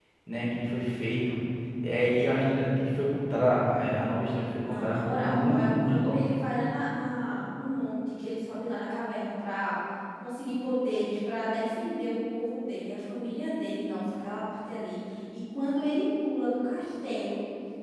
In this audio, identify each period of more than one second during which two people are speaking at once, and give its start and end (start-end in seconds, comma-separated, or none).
4.6-6.2